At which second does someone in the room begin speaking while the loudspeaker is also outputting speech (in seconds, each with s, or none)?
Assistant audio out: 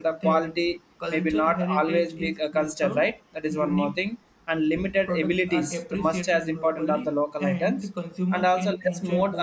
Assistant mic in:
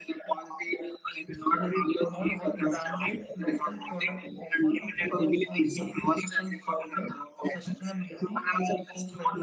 2.0 s